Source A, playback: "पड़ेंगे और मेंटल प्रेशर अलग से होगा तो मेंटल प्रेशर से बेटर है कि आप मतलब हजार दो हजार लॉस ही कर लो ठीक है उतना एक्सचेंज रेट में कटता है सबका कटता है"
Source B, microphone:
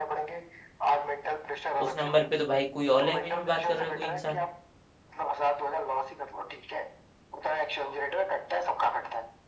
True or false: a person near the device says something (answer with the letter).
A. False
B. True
B